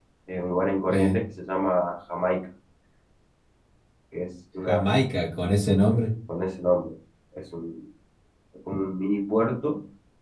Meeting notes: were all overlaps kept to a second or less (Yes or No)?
Yes